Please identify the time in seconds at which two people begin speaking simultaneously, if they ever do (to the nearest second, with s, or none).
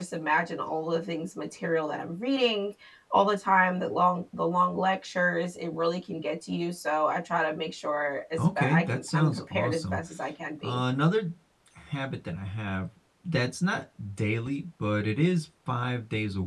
8 s